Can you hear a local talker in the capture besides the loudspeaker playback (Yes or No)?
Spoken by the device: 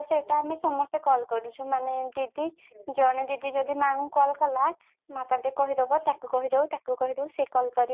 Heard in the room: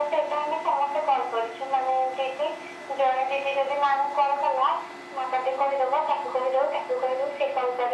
No